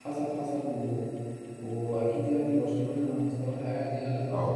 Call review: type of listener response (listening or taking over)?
taking over